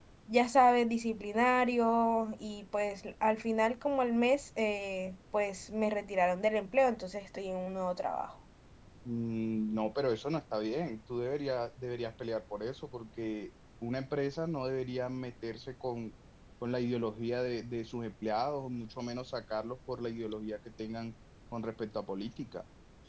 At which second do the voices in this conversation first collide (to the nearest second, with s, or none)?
none